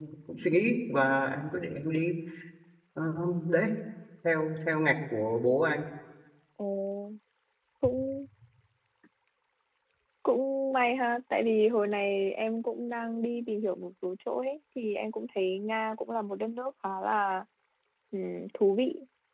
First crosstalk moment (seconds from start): none

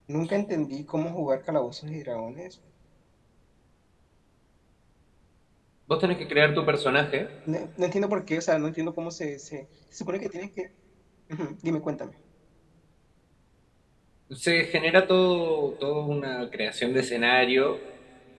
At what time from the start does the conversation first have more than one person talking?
none

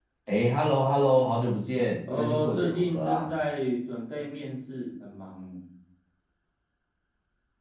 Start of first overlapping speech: 2.1 s

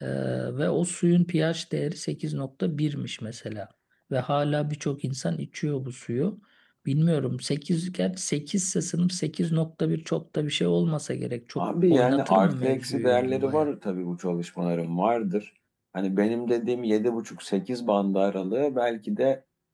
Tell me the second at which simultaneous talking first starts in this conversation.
11.6 s

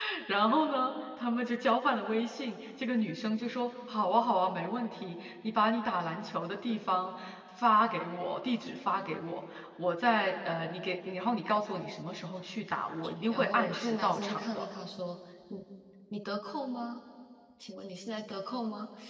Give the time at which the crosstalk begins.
13.3 s

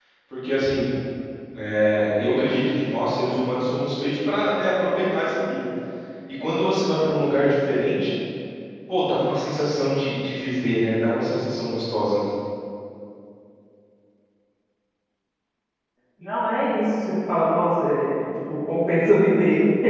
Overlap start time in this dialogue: none

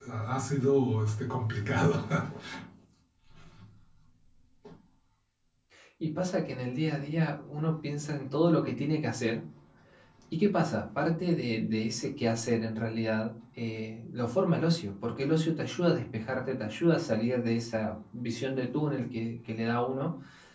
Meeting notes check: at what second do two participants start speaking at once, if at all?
none

